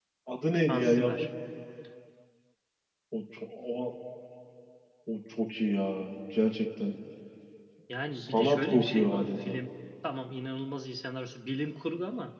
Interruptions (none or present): present